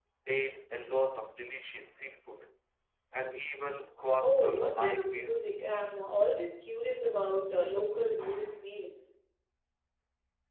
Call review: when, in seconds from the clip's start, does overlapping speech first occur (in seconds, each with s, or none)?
4.2 s